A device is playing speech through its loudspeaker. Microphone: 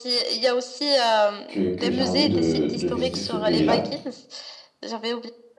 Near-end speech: present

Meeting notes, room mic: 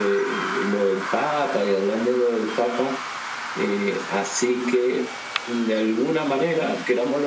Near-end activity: none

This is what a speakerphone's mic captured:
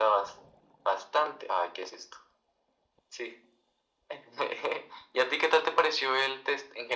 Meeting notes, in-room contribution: none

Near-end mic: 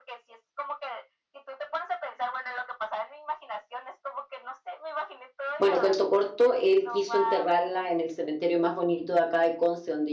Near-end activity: present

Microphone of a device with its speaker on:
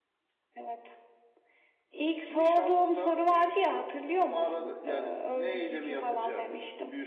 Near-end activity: none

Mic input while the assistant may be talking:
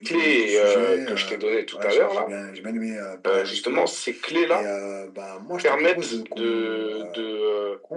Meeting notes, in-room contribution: none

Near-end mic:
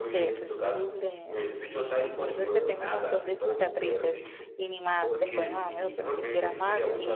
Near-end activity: present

